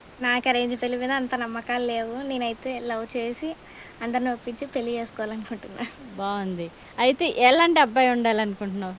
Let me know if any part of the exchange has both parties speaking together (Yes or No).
No